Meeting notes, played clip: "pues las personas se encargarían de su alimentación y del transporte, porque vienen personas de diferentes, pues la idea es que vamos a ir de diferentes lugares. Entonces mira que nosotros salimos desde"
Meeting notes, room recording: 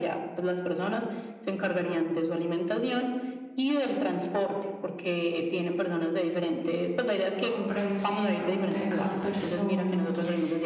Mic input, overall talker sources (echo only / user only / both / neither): both